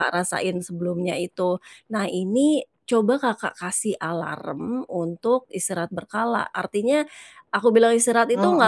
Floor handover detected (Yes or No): No